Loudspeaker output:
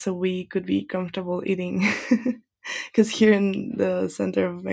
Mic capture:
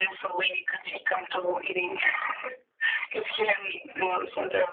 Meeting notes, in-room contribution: none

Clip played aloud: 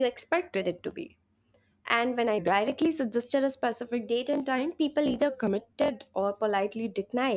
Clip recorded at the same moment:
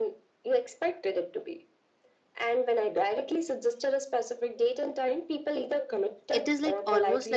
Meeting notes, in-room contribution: present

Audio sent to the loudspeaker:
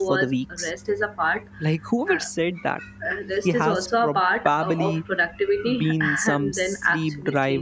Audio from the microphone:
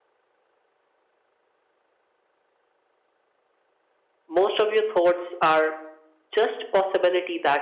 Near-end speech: present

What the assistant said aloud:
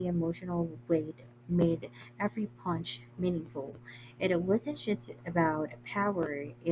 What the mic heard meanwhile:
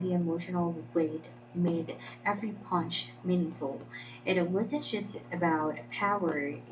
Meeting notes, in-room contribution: none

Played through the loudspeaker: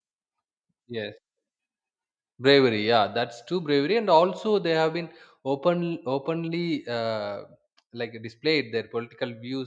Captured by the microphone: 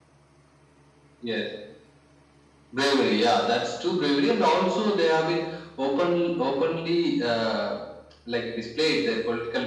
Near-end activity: none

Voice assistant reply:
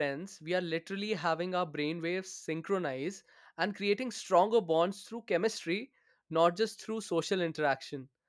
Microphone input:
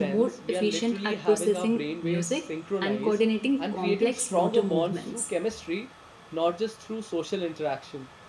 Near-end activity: present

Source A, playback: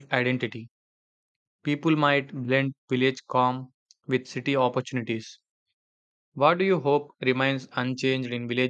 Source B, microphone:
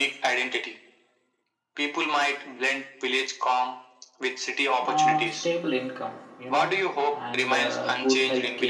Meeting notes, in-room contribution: present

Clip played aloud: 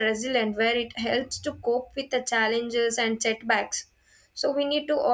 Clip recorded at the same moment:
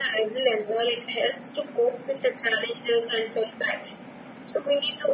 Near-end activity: none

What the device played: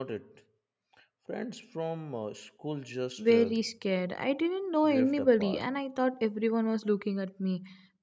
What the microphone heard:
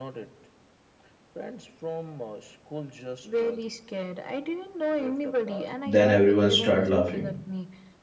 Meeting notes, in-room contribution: present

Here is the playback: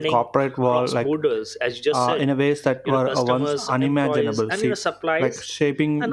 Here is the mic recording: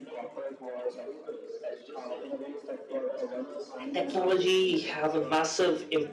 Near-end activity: present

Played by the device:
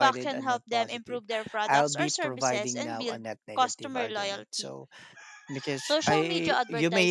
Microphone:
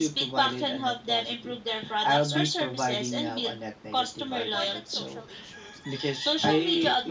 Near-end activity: present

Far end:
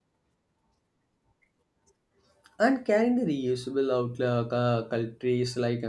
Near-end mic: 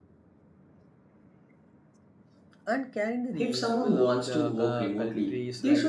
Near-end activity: present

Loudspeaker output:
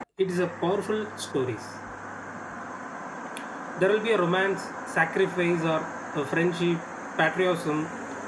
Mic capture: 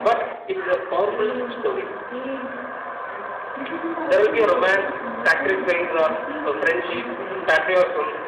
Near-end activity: present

